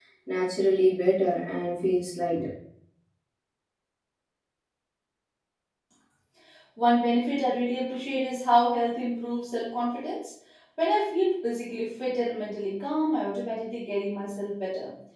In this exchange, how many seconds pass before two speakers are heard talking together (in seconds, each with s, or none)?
none